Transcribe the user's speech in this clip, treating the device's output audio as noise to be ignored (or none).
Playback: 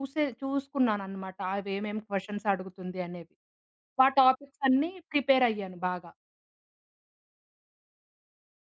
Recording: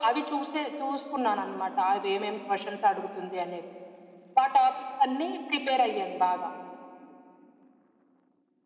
none